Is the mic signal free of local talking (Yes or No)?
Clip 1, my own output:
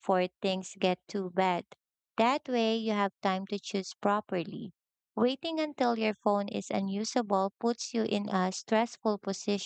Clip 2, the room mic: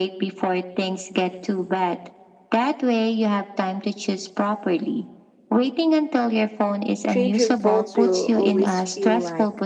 No